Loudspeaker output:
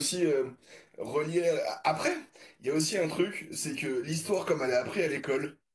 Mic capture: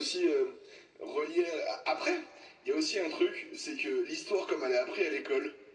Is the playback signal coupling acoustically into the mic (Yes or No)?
Yes